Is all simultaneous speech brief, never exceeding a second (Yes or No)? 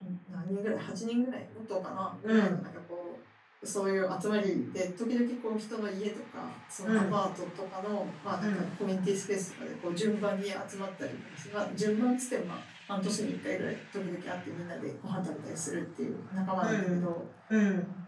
Yes